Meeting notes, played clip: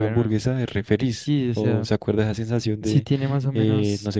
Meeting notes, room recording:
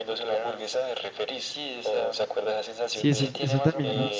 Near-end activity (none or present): present